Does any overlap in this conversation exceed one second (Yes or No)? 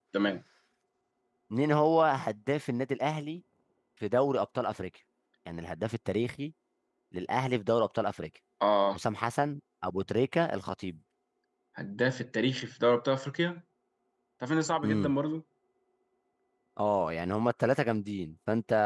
No